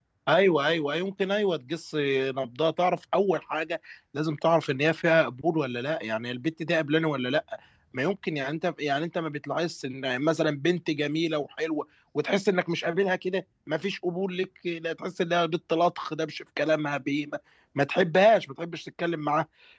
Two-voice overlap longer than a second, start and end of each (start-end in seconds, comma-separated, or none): none